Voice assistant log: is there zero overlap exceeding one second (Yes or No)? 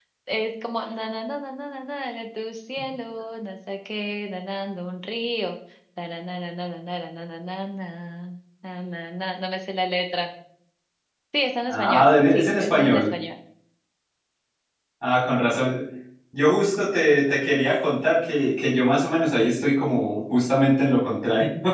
No